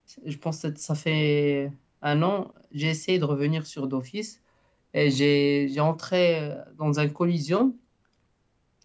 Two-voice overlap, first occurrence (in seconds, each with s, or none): none